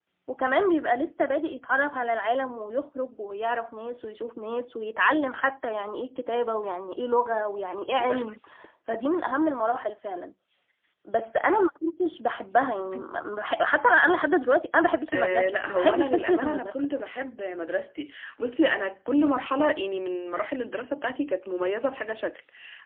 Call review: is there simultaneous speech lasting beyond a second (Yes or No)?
Yes